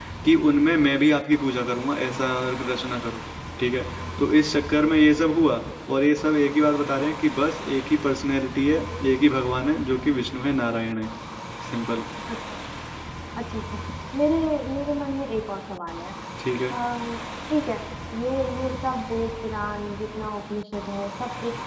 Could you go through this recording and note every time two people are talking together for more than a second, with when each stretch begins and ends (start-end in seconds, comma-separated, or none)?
none